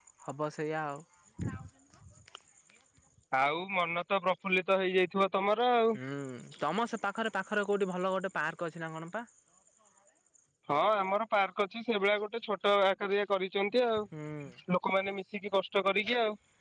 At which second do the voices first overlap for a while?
none

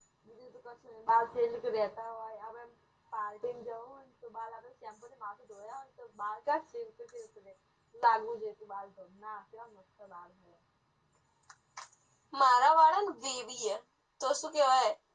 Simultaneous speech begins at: none

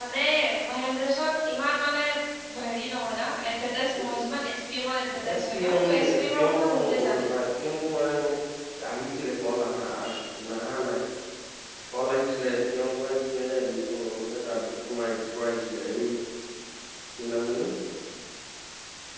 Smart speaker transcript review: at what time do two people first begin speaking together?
5.2 s

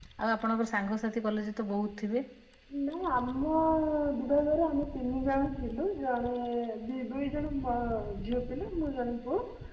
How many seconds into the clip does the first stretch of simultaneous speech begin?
none

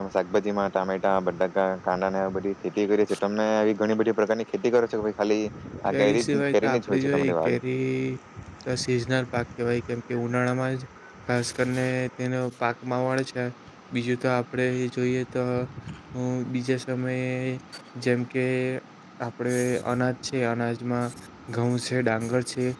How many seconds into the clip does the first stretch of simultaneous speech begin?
5.9 s

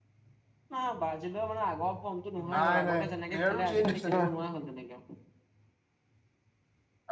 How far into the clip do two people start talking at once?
2.4 s

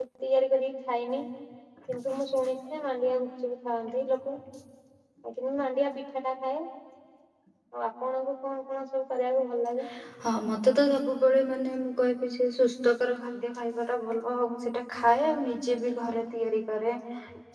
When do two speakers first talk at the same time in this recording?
none

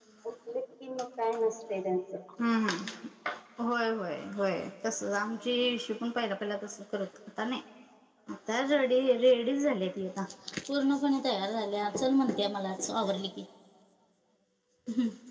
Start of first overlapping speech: none

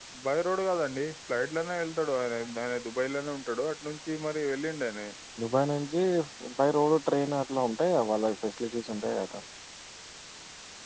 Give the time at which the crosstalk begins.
none

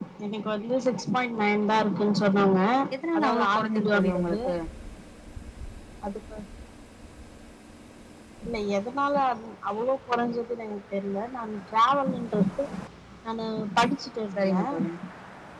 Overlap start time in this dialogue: 3.2 s

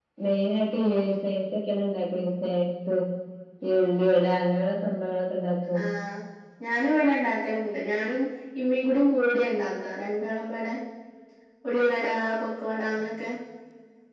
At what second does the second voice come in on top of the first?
none

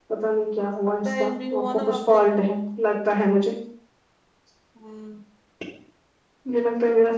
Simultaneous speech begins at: 1.0 s

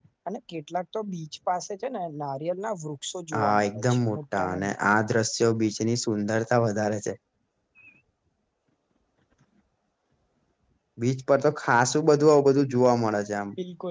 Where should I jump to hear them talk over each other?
3.3 s

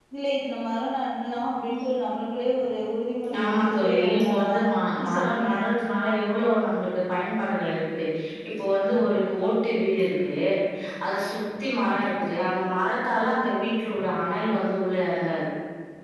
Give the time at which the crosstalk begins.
3.2 s

